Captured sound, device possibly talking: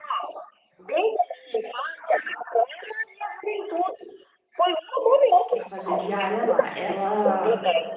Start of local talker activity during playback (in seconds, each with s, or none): 5.5 s